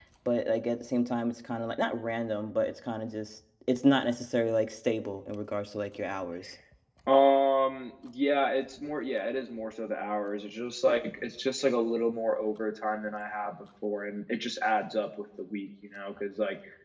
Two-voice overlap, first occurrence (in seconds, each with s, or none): none